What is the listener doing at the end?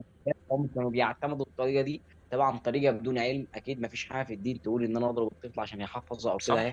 taking over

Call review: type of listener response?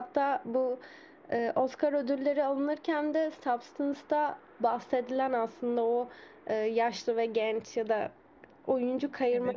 listening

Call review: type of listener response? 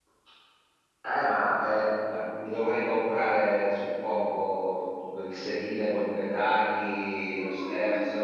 taking over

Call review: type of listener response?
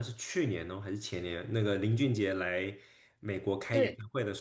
listening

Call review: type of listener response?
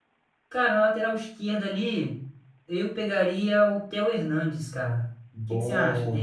taking over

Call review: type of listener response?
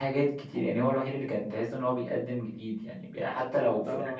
listening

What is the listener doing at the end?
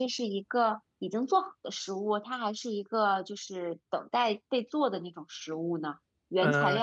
taking over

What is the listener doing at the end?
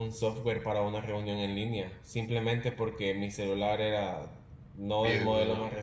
listening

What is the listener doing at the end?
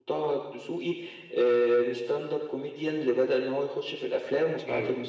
taking over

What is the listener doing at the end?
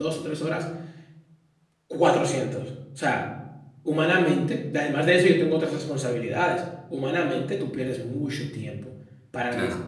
listening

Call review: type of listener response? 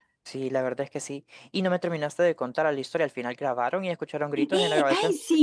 taking over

